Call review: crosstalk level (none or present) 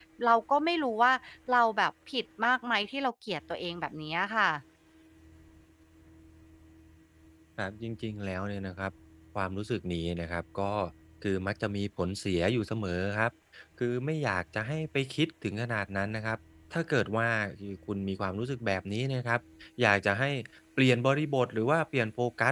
none